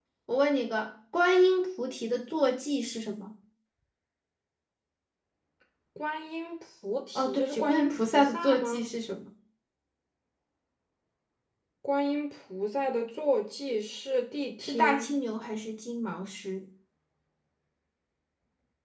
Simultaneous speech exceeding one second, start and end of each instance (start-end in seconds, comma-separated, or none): 7.2-8.9